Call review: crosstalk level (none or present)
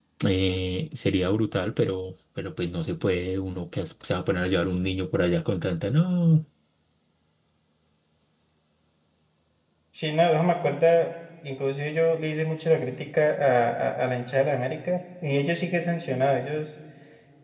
none